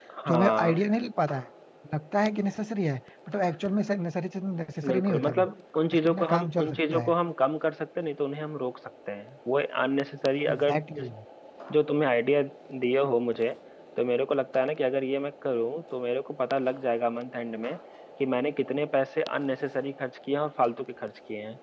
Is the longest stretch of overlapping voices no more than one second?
No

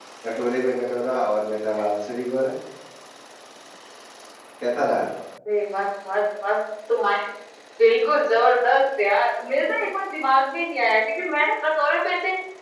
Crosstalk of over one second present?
No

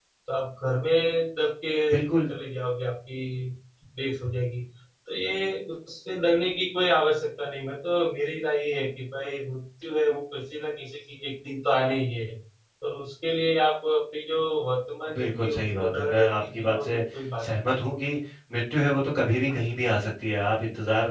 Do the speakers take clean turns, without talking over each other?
No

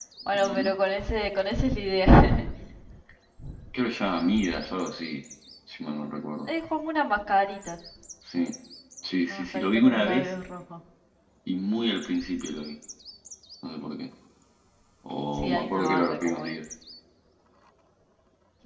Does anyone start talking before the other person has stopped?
Yes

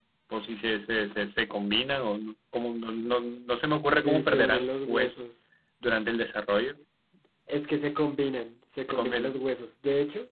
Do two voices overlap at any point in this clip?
Yes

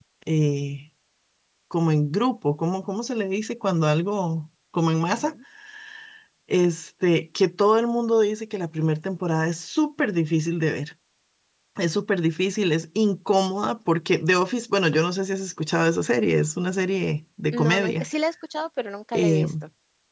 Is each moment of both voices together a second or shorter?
Yes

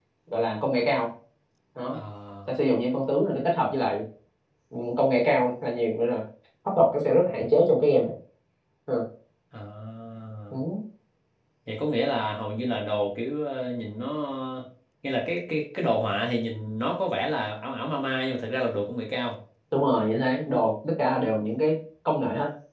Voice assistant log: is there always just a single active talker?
Yes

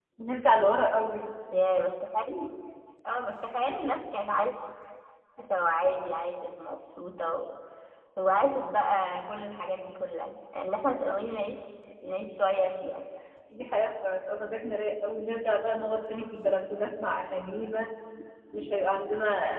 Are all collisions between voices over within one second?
Yes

